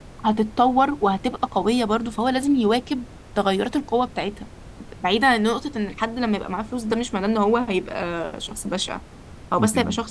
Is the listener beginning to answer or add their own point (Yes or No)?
No